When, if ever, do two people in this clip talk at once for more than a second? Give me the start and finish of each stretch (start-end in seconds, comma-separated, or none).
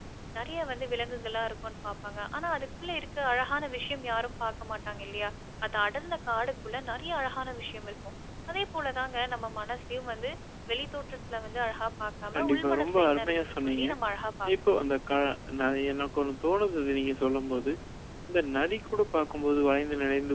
12.4-13.8